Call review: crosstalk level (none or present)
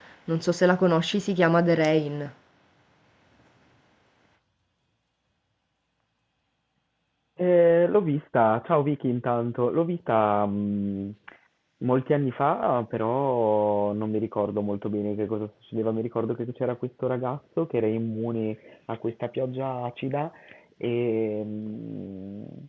none